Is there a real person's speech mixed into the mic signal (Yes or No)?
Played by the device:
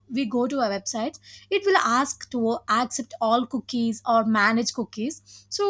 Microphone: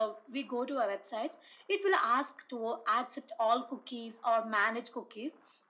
No